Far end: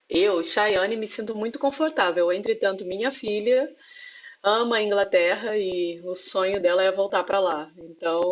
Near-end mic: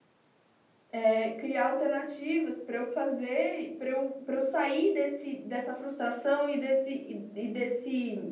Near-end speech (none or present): present